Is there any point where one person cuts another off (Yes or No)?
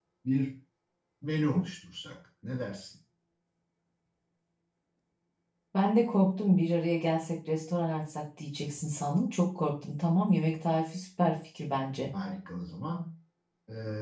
No